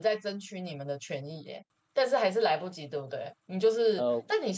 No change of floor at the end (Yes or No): Yes